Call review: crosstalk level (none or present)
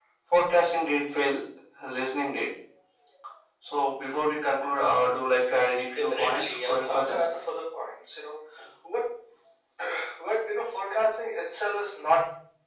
present